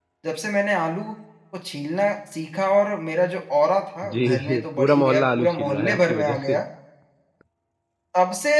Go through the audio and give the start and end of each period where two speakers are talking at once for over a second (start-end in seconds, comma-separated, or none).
4.2-6.6